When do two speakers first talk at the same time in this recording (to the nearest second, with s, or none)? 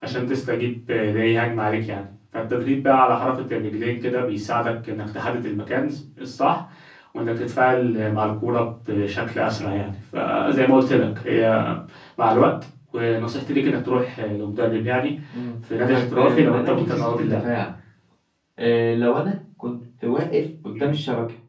16 s